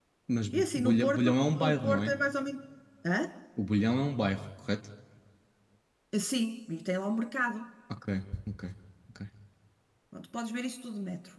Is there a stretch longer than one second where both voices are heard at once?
Yes, from 0.5 s

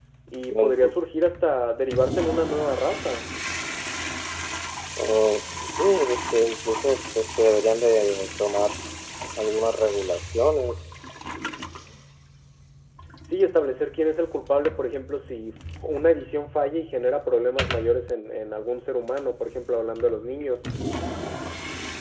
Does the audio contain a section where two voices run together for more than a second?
No

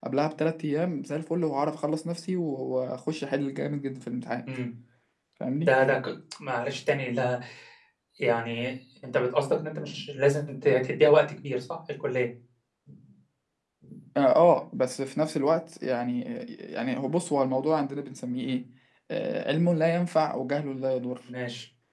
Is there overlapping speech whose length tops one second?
No

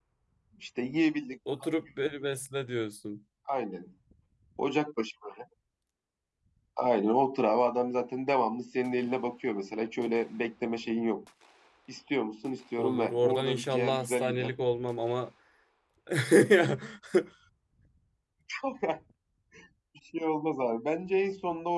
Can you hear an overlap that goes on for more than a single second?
Yes, from 12.8 s

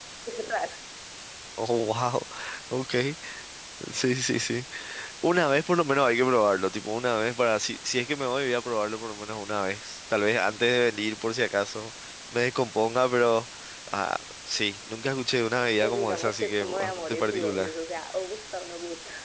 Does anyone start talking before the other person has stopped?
Yes, from 15.8 s

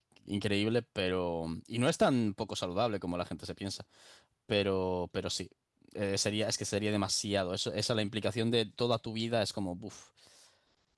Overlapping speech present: No

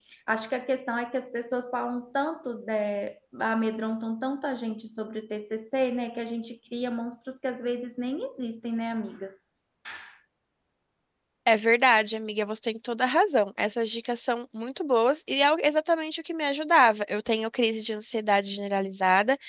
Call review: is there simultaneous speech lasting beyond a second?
No

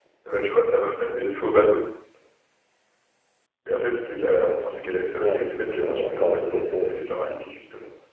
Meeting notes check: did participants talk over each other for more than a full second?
Yes, from 5.2 s

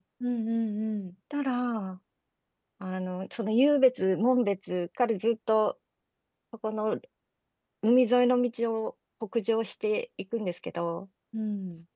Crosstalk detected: No

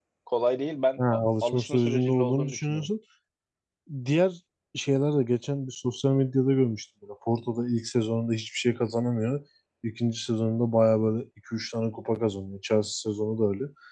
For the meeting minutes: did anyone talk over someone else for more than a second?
Yes, from 1.0 s

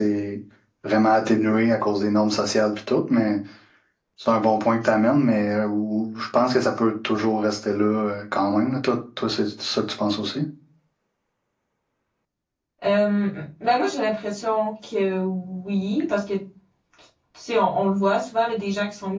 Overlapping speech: No

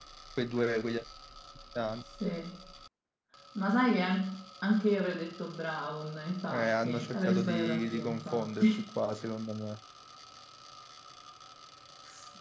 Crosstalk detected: Yes, from 6.5 s

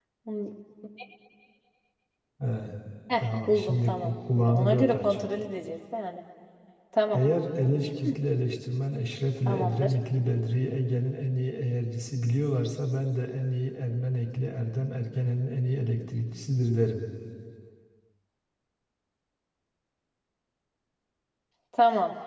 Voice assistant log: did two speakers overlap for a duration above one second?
Yes, from 3.2 s

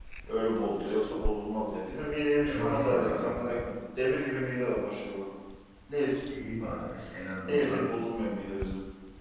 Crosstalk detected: Yes, from 2.5 s

